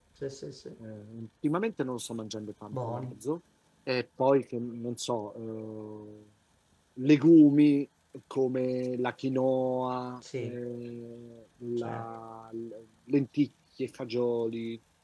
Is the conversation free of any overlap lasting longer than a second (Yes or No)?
Yes